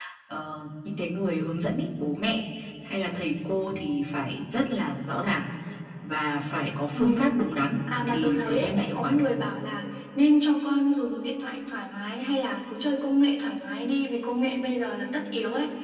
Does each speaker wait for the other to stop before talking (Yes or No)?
No